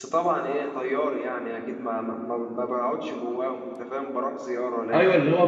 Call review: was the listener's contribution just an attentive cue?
No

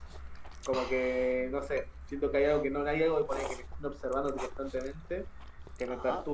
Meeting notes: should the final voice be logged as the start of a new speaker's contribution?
No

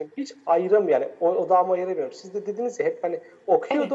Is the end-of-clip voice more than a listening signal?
No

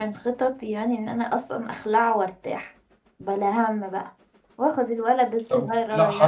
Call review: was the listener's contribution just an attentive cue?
No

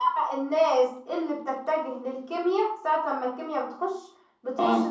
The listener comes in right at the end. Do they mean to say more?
No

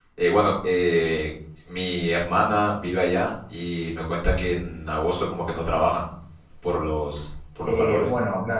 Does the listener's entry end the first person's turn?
Yes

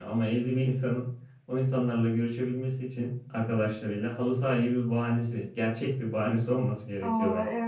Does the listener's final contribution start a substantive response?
Yes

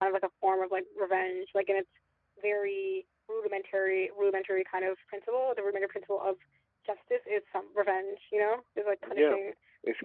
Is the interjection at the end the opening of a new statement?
Yes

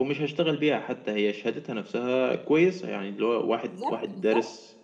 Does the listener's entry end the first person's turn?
No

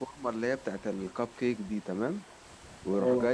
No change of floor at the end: Yes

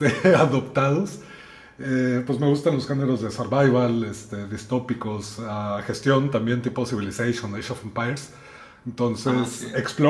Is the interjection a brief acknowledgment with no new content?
Yes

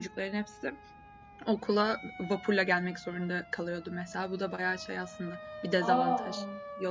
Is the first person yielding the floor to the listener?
Yes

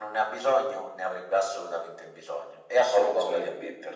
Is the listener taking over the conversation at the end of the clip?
Yes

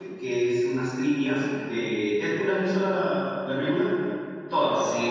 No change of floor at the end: No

